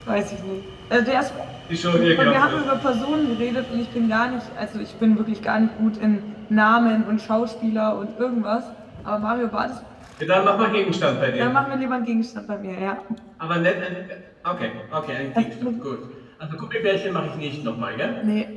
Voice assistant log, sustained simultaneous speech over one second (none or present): none